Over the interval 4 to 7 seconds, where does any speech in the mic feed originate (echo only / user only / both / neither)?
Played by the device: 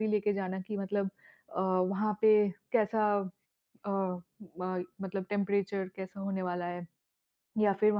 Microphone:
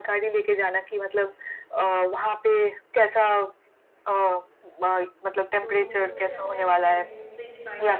both